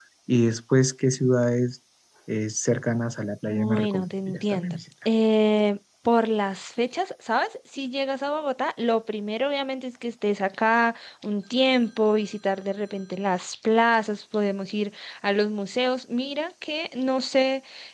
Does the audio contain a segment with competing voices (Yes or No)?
Yes